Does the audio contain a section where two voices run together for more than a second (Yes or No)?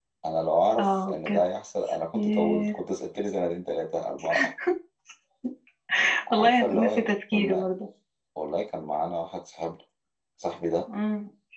Yes